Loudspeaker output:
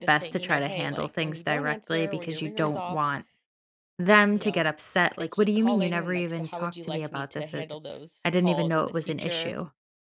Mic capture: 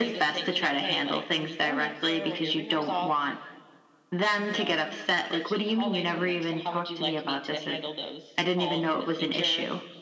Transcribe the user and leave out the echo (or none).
none